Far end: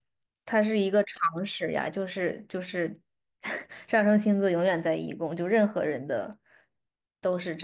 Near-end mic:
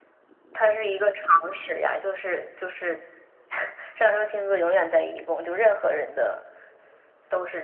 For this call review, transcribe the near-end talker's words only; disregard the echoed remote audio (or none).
none